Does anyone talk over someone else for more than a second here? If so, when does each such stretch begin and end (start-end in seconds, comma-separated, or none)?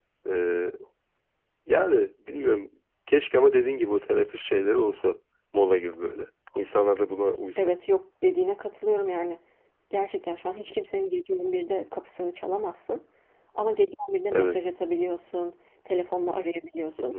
none